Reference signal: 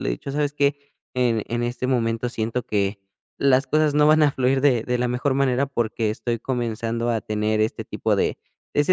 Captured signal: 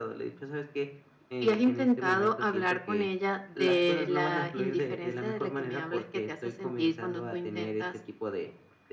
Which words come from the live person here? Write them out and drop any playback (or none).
y has intentado hablar con ella de la indiferencia de la que me hablas que te hace sentir cuando tú intentas,